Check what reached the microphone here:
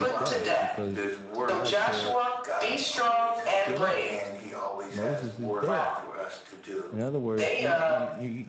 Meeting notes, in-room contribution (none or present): present